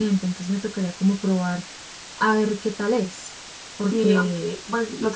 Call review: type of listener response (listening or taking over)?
taking over